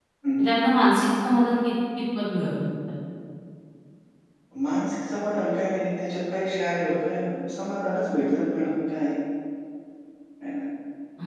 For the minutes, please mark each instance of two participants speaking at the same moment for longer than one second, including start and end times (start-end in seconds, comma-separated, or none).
none